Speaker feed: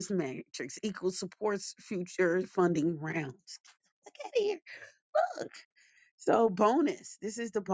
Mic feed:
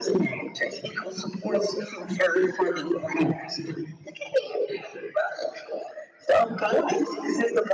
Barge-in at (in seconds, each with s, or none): none